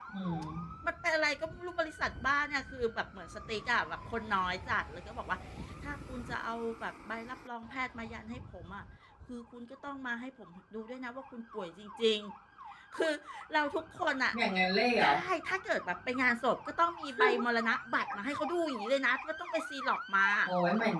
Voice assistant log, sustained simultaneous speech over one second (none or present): none